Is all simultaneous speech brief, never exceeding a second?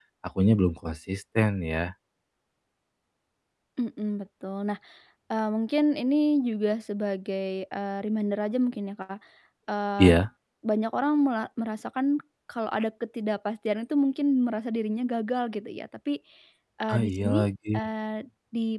Yes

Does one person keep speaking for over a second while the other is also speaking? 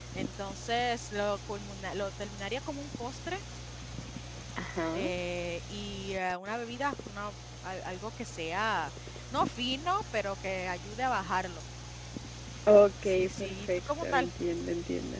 Yes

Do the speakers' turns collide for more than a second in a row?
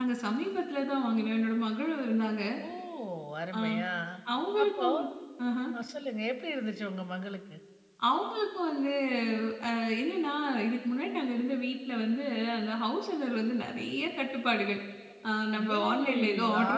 Yes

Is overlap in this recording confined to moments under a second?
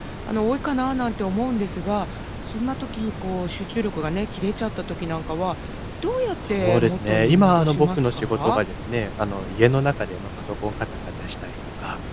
No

